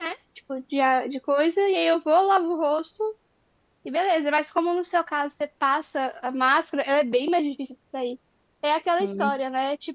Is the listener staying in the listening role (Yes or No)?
Yes